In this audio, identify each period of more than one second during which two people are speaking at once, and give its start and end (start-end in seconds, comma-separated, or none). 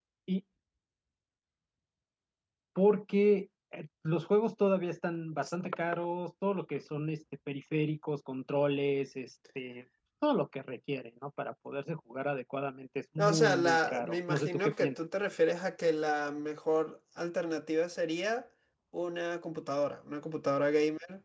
13.2-15.0